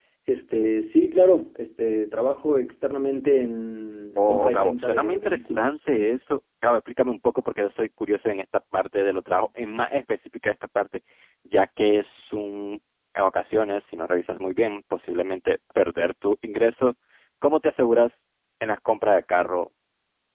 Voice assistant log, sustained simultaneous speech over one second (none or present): present